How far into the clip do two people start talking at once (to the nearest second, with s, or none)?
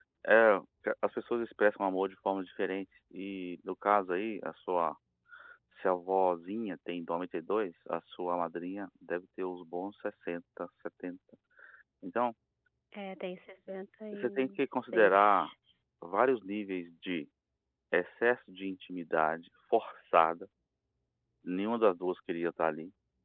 14 s